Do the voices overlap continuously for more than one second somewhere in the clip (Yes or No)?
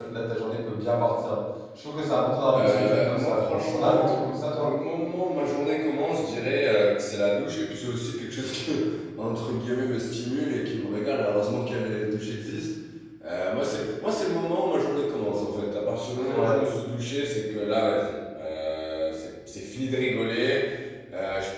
Yes